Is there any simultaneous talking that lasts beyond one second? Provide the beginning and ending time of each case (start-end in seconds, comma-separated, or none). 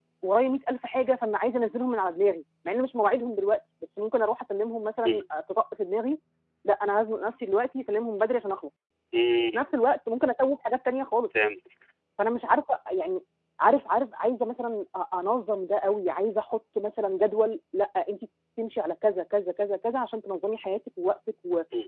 none